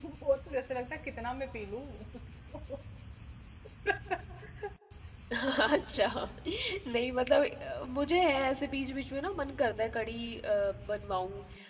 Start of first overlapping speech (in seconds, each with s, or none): none